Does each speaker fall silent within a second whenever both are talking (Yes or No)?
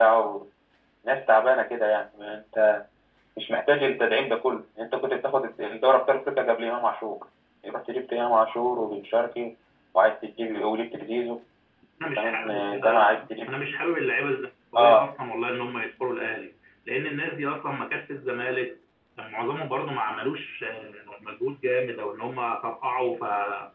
No